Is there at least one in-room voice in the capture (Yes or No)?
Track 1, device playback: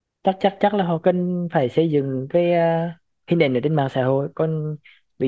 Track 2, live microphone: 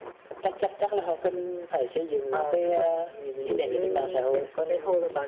Yes